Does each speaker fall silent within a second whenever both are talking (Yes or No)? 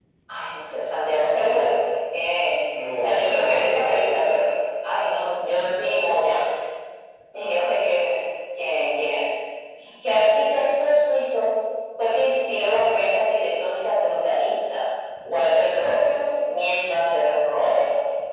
No